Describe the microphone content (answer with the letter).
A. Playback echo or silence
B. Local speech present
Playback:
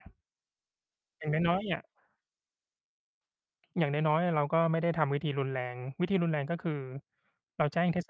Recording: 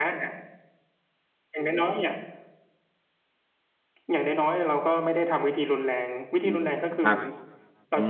B